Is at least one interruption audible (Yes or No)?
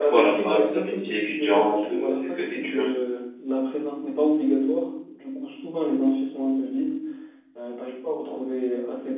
Yes